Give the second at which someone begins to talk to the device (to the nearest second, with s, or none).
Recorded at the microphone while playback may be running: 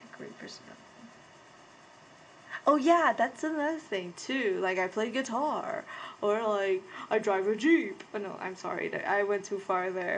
none